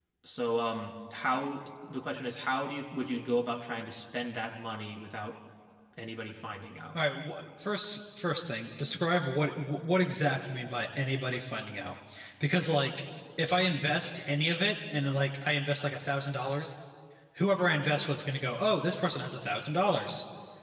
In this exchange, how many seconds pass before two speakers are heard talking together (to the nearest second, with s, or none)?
none